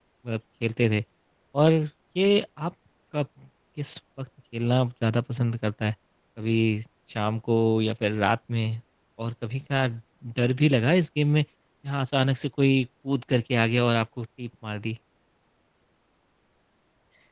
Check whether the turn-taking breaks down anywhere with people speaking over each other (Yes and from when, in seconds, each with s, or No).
No